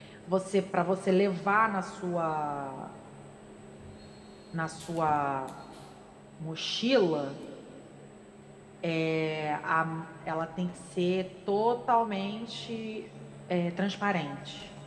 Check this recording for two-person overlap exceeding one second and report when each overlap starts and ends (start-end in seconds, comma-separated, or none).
none